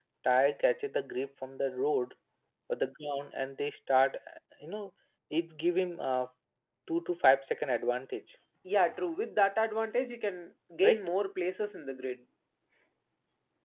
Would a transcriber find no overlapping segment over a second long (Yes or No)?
Yes